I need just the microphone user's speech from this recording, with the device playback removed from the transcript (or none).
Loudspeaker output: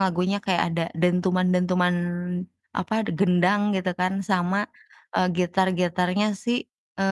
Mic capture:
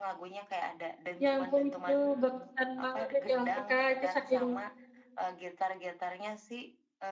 Ya ampun, itu berkesan banget itu. Ya ampun Kak, saking